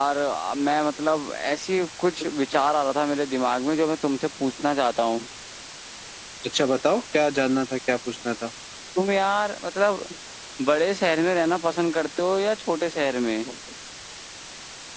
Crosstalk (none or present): none